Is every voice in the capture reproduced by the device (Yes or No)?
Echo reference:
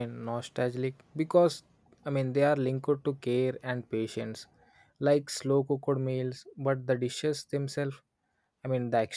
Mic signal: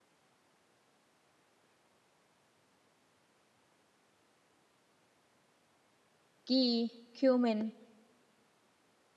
No